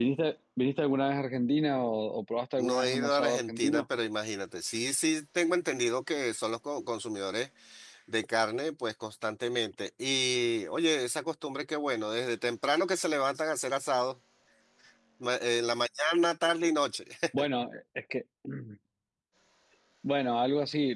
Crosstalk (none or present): present